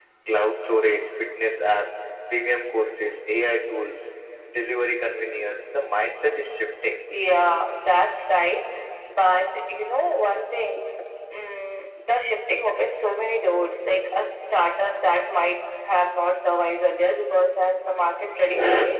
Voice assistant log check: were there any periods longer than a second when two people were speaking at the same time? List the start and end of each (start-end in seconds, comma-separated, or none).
none